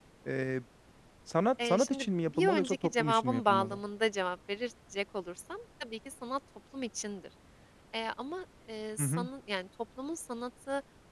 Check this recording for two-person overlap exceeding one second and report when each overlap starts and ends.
1.6-3.8

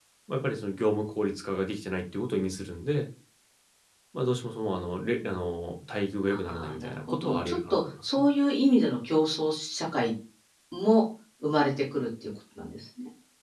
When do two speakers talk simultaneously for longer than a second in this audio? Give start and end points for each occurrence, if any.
6.3-8.2

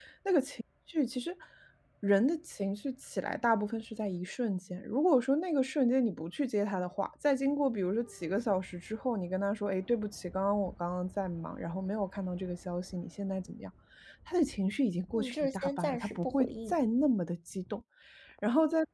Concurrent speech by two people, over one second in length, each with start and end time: 15.1-16.7

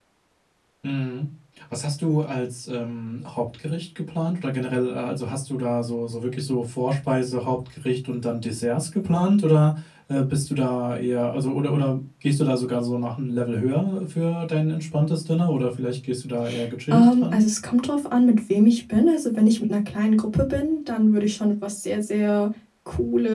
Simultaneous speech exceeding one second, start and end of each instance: none

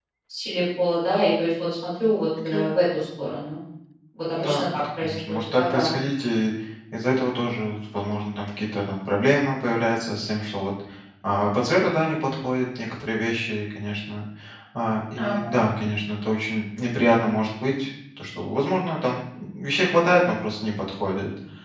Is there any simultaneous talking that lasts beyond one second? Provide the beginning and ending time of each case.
4.4-5.9

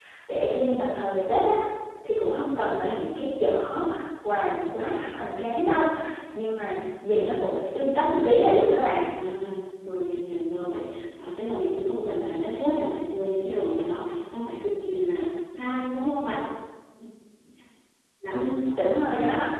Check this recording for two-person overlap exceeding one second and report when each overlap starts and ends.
none

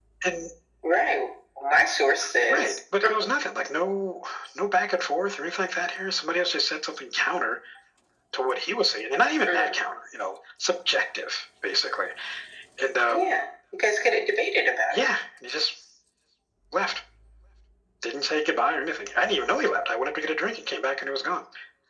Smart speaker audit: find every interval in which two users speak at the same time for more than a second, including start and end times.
none

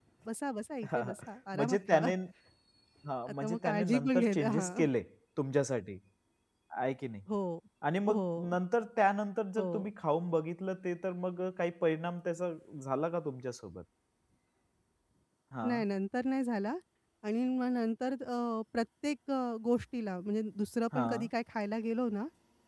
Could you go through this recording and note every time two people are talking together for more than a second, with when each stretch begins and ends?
3.4-4.8

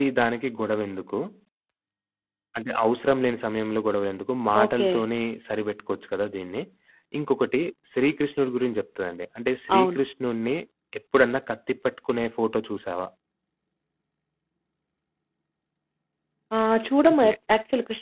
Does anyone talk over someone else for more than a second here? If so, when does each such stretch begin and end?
none

